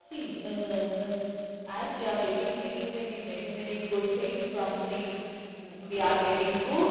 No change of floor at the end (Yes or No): Yes